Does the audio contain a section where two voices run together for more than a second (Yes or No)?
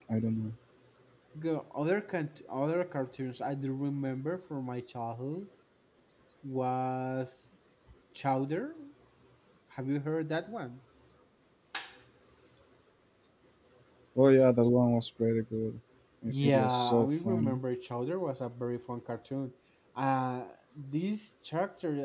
Yes